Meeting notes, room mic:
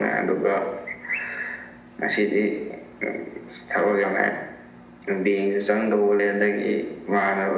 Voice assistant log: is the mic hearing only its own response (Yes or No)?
Yes